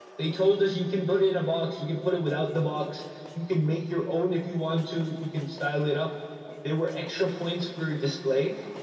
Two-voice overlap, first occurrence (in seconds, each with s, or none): none